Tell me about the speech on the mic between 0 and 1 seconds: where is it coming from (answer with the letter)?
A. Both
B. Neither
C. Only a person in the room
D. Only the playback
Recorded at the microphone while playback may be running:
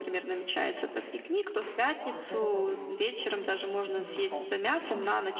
D